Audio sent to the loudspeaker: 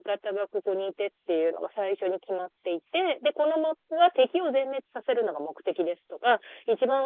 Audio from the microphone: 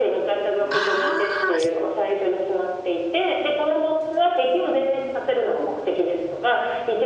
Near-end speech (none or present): present